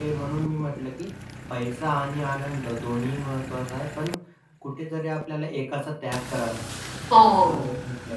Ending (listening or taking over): listening